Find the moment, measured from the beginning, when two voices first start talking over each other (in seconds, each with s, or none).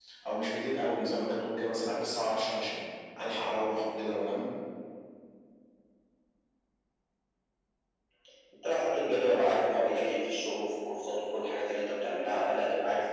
none